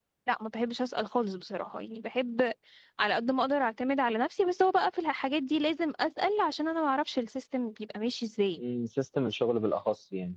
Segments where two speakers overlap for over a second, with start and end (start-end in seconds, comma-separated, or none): none